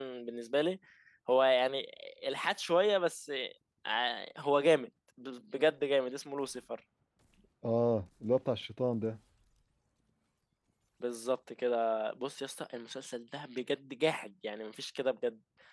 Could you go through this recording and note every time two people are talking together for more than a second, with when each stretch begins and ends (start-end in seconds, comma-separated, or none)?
none